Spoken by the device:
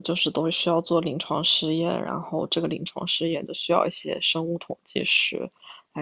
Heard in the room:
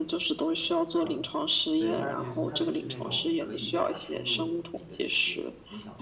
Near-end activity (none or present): present